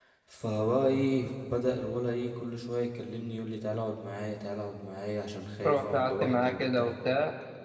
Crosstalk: present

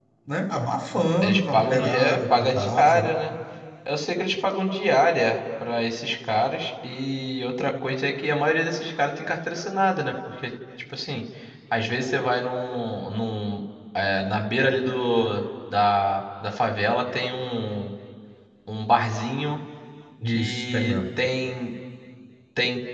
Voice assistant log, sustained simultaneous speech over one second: present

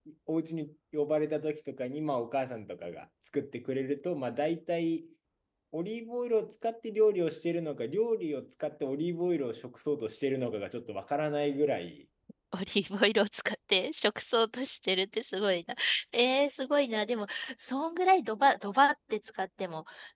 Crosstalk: none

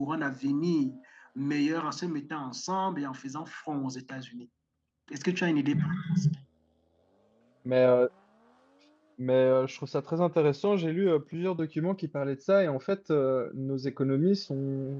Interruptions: none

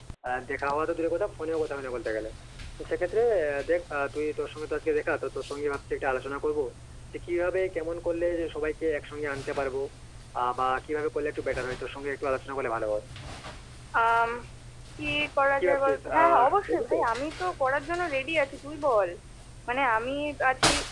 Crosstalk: present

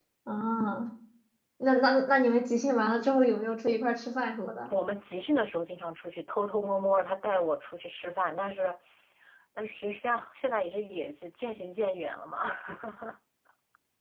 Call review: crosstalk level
none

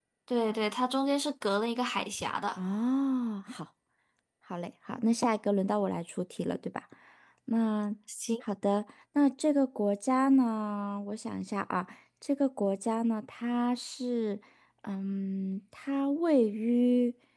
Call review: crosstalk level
none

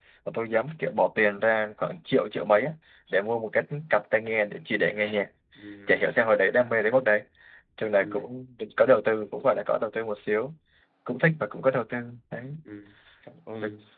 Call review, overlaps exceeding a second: none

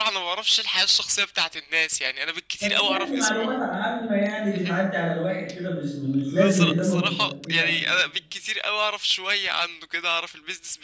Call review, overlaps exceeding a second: present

